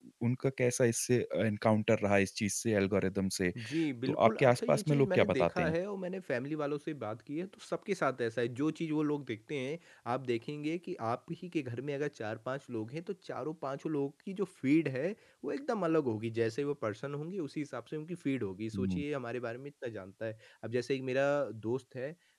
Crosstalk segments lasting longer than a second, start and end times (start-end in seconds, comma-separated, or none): 4.1-5.7